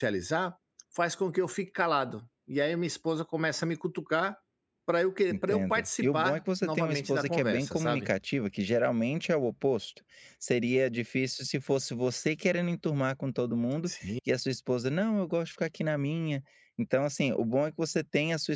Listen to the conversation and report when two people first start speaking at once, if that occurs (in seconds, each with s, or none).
5.3 s